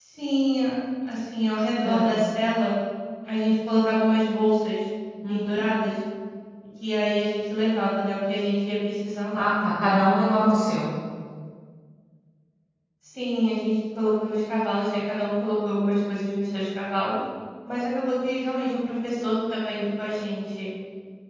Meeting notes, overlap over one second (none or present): none